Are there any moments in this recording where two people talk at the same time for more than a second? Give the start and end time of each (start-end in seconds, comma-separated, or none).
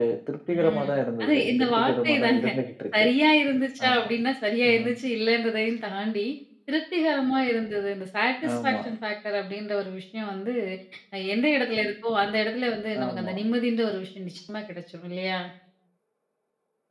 1.2-2.4